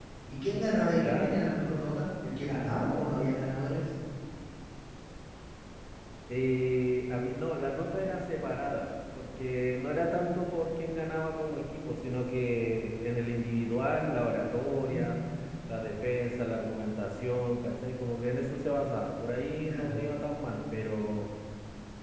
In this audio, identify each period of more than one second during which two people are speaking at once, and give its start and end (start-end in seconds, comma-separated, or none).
none